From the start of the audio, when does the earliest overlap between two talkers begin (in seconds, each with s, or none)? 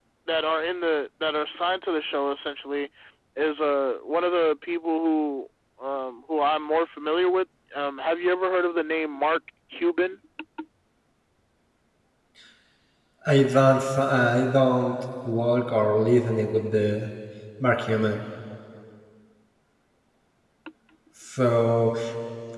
none